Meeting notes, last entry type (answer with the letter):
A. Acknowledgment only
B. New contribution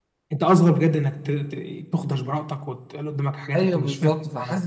B